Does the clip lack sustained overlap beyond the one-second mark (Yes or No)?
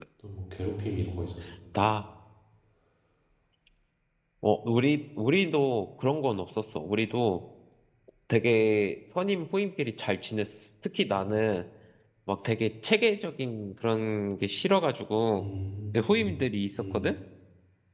Yes